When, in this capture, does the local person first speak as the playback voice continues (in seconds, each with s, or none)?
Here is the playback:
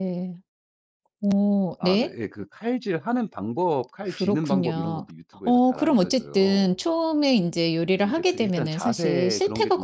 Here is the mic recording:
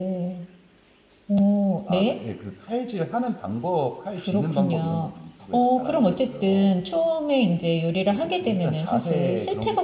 none